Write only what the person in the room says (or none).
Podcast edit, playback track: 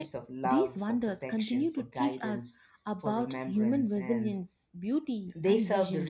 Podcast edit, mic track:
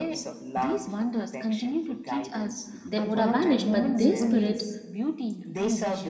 that would have vanished, but their spirit